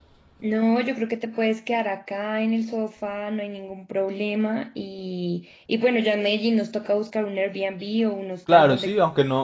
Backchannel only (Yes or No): No